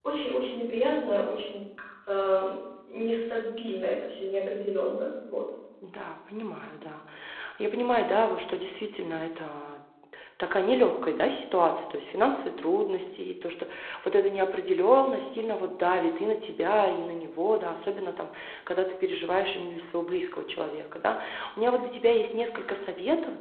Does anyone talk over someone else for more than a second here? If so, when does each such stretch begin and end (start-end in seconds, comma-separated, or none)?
none